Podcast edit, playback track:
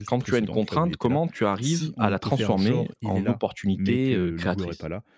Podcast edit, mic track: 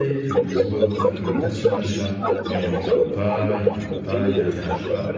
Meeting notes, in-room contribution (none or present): present